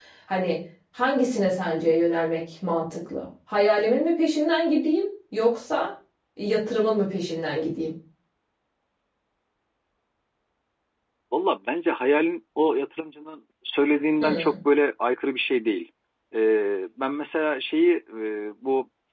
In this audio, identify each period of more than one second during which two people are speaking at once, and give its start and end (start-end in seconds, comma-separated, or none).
none